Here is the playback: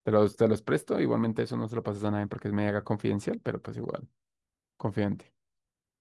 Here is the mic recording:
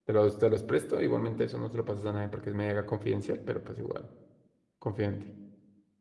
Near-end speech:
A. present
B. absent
B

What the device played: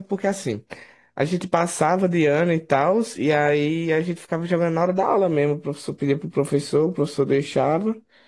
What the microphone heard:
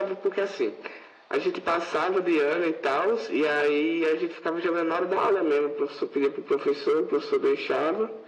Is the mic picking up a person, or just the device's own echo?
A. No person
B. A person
A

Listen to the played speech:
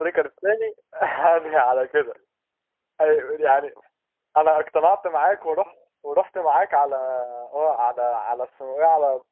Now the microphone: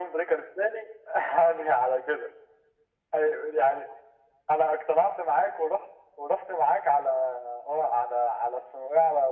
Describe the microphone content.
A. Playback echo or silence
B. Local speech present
A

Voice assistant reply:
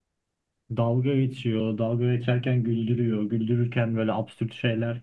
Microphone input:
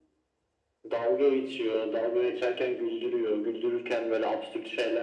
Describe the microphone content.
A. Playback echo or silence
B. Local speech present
A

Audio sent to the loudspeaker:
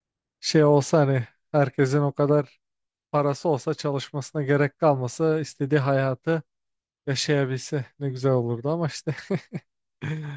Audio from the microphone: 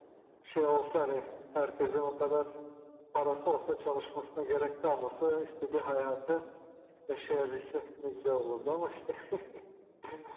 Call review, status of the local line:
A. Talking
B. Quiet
B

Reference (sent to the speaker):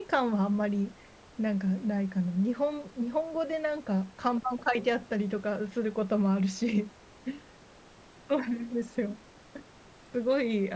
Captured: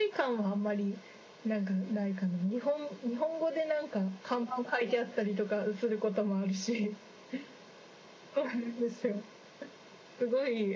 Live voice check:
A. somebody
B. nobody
B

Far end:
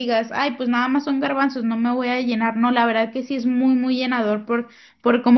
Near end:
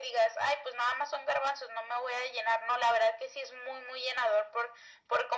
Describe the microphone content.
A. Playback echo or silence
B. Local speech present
A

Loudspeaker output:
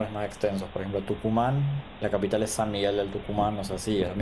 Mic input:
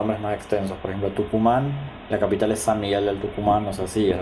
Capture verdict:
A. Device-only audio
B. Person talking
A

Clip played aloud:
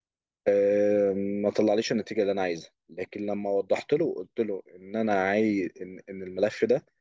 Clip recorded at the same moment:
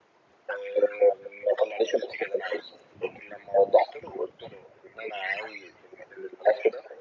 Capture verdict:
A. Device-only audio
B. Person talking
A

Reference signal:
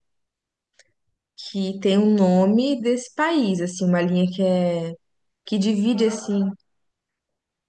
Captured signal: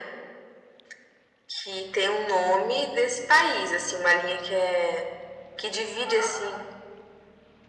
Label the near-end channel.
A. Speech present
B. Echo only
B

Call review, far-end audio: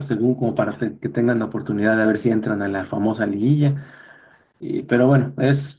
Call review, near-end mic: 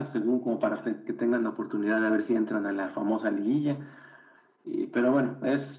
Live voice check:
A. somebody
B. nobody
B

